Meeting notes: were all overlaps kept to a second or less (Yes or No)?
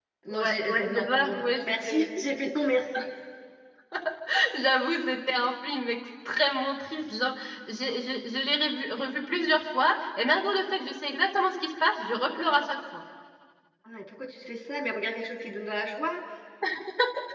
No